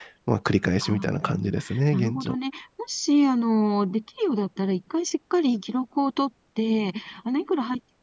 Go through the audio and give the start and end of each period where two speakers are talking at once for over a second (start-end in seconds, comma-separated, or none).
0.8-2.4